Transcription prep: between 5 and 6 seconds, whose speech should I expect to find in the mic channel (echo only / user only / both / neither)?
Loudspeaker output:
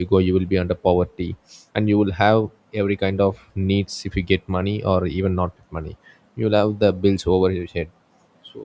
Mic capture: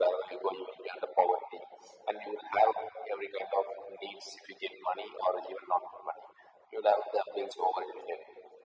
echo only